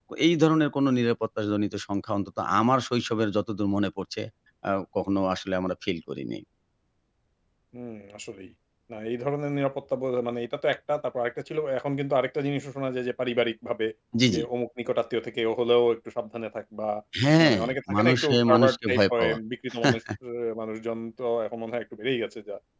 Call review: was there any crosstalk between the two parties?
Yes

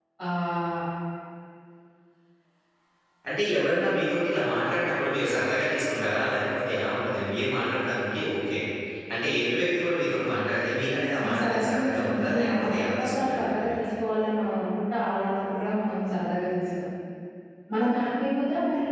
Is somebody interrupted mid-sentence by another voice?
Yes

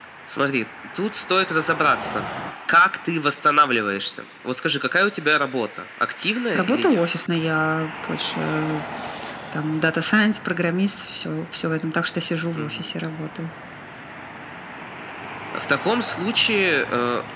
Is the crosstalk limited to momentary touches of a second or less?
Yes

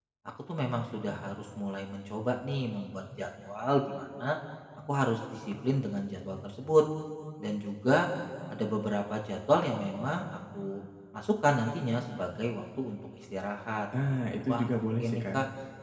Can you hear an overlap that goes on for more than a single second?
Yes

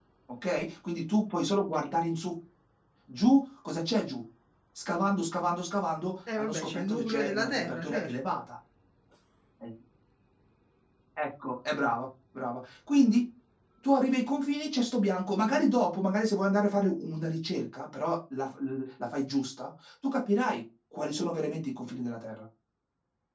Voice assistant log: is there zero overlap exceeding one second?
No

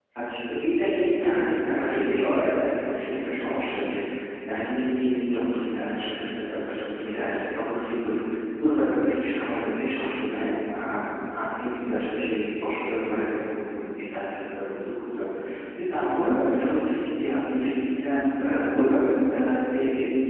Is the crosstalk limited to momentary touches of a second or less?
No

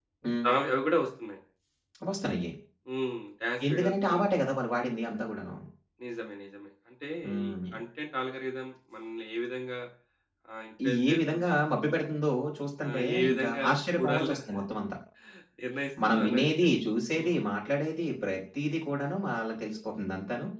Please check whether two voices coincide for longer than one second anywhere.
Yes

